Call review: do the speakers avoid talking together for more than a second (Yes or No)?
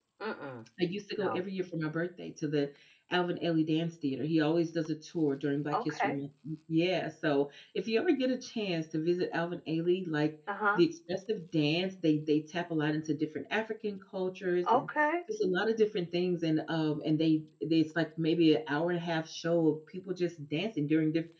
Yes